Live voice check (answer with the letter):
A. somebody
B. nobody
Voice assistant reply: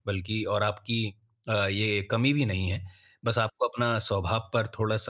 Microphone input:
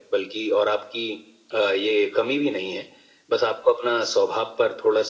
B